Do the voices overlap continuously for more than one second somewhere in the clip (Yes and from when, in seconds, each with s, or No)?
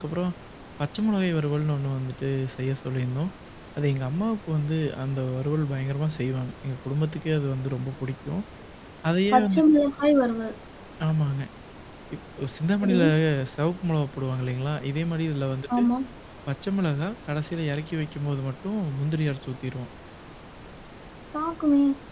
No